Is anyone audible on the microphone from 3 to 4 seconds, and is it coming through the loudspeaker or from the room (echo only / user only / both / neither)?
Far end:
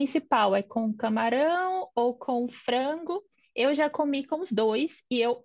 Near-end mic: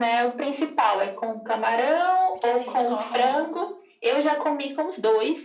both